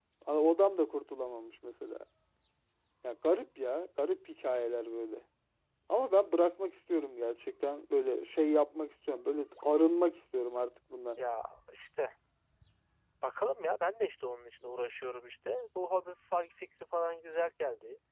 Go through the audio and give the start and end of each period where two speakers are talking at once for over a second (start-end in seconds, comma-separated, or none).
none